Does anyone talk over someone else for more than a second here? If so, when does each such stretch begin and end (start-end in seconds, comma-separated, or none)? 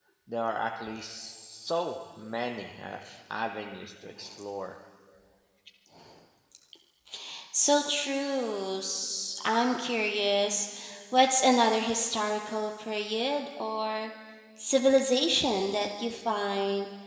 none